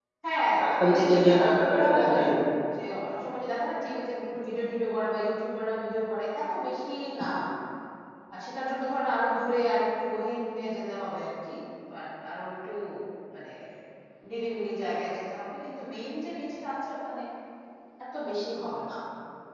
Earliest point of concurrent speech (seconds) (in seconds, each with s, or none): 0.6 s